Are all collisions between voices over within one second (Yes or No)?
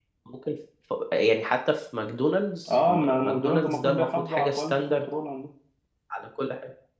No